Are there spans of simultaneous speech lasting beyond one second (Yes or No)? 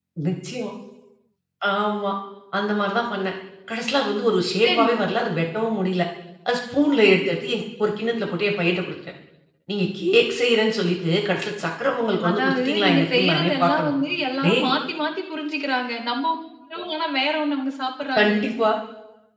Yes